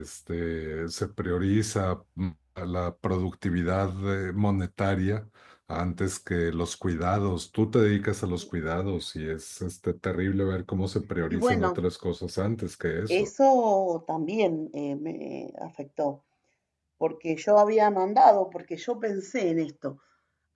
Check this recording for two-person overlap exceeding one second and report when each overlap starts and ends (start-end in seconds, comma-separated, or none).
none